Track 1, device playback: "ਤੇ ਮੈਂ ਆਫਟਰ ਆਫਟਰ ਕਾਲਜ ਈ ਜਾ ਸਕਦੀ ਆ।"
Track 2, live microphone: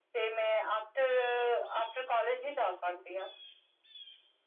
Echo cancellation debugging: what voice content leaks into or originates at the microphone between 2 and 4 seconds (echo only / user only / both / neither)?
echo only